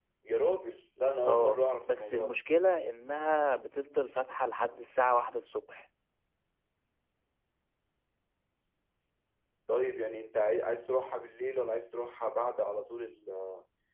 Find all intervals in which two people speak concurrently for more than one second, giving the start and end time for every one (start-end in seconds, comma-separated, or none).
1.2-2.4